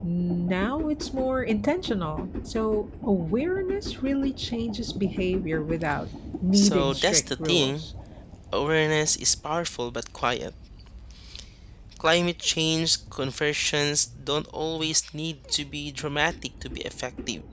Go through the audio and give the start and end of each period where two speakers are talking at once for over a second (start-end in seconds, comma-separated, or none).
6.5-7.9